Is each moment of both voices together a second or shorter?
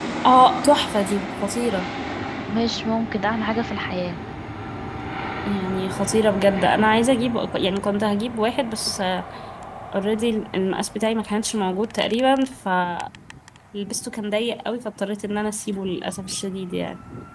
Yes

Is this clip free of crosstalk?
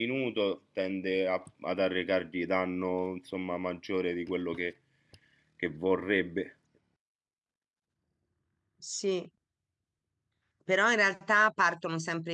Yes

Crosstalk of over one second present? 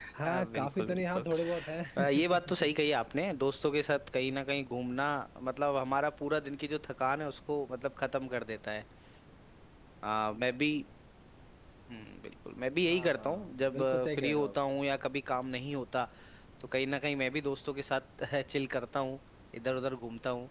Yes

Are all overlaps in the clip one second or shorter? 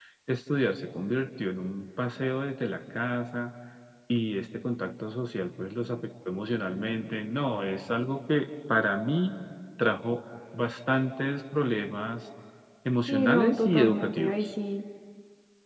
No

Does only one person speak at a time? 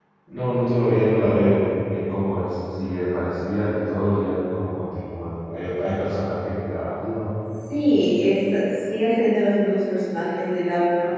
Yes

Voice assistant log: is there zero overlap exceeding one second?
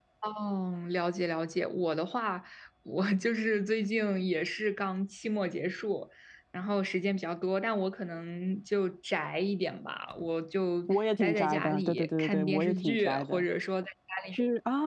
No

